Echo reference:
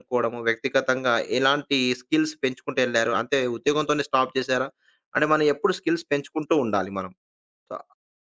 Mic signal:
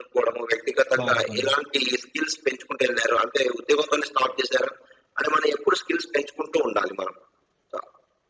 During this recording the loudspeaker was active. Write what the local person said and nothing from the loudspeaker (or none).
మార్పు. ఉంది.